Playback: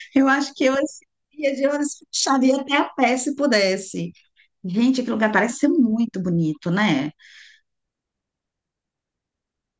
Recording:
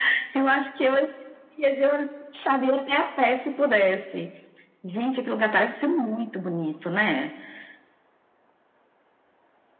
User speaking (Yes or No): No